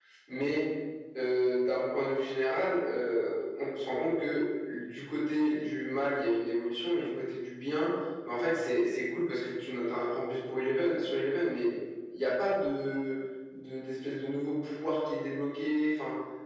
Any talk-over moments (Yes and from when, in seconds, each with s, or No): No